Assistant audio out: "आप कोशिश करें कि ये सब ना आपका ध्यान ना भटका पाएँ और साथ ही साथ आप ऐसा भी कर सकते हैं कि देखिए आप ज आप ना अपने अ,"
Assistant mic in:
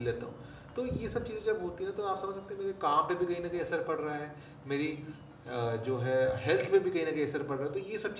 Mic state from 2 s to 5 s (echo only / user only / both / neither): user only